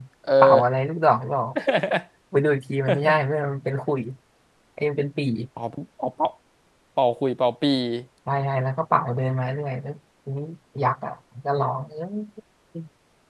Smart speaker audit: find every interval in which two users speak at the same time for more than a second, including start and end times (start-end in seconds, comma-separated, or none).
none